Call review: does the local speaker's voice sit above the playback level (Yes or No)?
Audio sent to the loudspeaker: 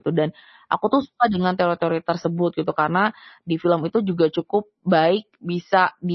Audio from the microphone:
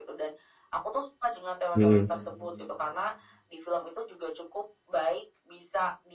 Yes